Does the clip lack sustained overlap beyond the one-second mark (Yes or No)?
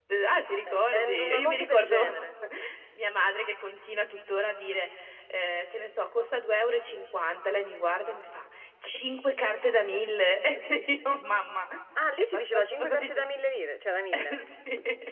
No